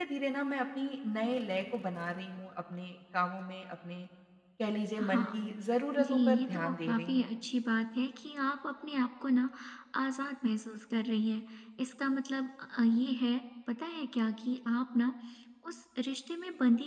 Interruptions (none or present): present